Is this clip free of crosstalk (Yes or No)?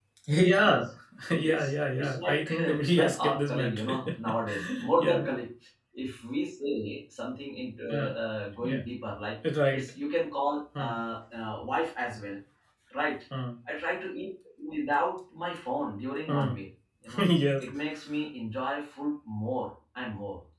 No